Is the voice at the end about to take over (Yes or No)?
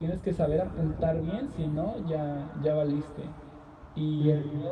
No